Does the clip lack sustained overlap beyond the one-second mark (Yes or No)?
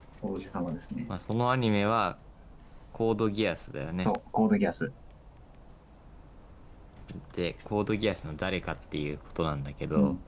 Yes